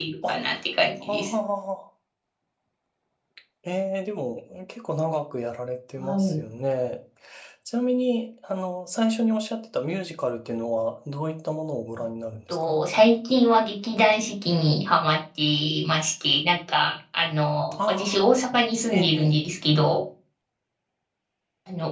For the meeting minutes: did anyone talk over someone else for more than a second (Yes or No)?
No